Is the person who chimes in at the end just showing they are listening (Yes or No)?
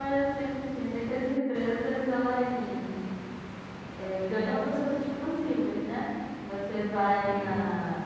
Yes